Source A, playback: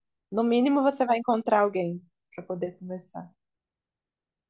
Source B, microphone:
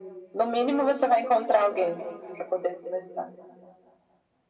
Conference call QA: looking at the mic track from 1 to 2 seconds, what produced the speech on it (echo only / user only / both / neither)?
echo only